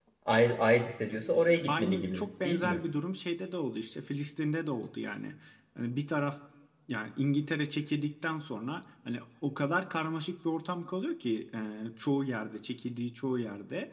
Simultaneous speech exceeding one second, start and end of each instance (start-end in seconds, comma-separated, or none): 1.1-2.8